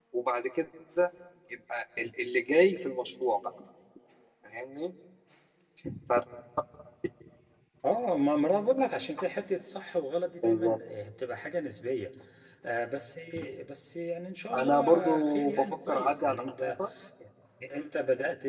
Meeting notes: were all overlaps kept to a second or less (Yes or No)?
No